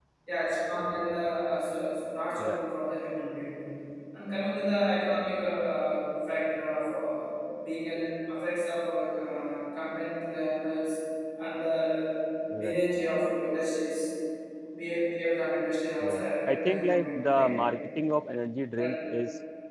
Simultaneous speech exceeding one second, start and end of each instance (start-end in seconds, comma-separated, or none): 16.0-17.5